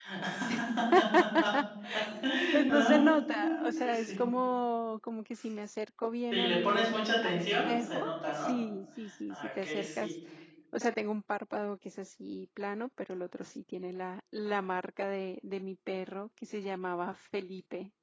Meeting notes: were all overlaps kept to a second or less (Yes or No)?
No